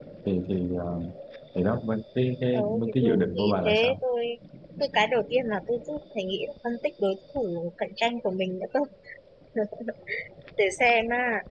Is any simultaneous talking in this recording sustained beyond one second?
Yes, from 2.5 s

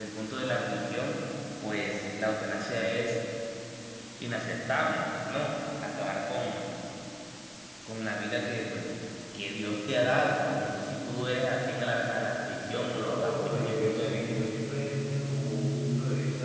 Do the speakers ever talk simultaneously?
Yes, from 12.7 s

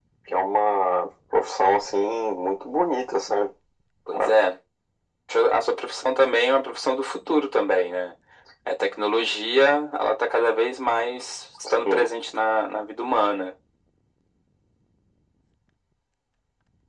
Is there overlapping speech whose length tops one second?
No

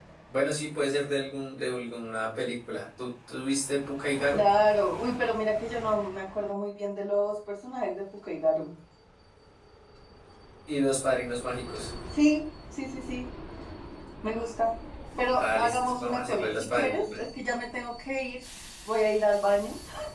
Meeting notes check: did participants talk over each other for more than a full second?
Yes, from 15.3 s

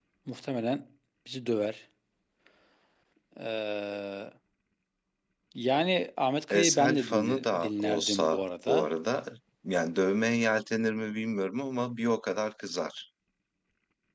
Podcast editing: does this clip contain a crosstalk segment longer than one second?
Yes, from 6.5 s

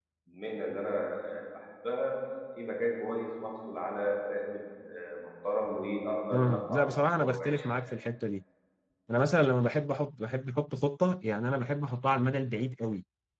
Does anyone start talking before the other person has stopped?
Yes, from 6.3 s

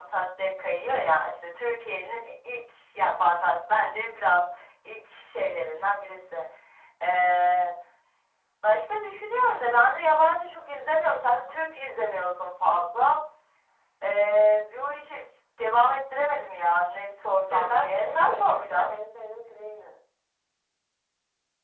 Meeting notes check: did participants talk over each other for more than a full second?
Yes, from 17.5 s

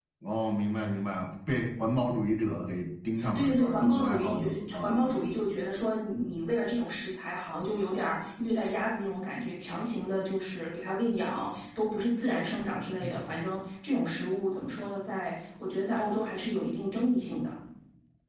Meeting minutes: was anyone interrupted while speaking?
Yes, from 3.4 s

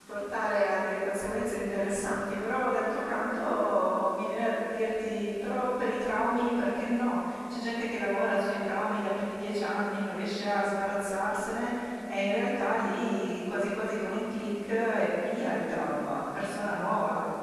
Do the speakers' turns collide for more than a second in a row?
No

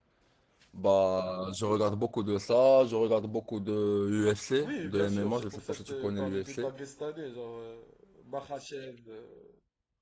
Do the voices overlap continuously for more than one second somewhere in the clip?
Yes, from 4.6 s

